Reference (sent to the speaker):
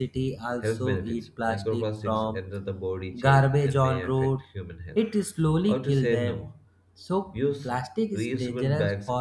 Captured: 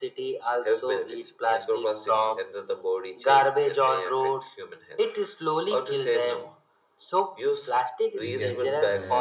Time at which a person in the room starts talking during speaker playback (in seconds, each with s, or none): 8.2 s